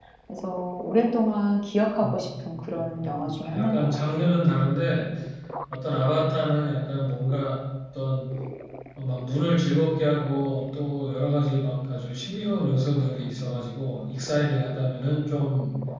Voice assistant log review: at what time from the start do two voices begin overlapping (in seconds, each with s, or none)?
2.0 s